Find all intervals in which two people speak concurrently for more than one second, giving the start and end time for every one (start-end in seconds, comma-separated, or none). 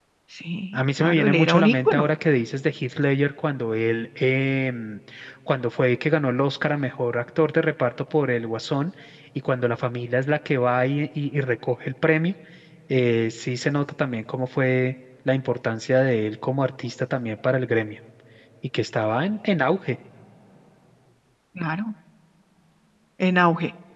0.7-2.1